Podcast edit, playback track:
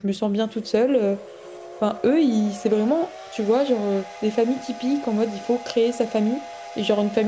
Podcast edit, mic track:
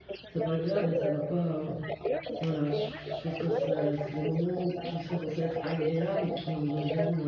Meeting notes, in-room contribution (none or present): present